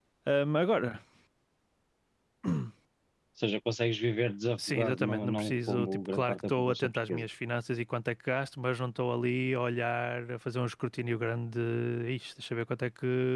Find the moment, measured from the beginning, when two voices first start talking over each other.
4.6 s

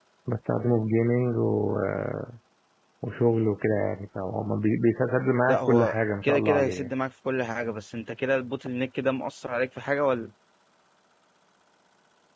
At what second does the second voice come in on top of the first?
5.5 s

